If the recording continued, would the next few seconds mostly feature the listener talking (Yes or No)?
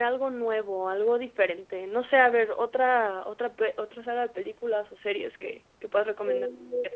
Yes